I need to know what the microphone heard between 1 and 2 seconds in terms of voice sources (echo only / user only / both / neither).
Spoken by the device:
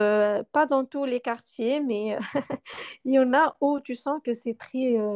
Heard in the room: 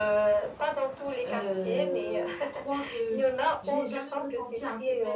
both